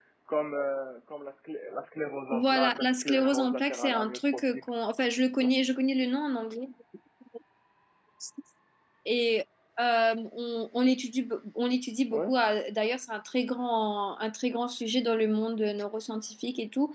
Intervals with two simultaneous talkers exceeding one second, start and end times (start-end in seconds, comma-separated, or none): 2.3-4.4